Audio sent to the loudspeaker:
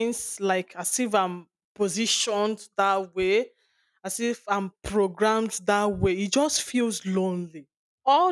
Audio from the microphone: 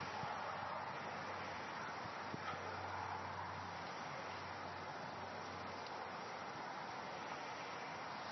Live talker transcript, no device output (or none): none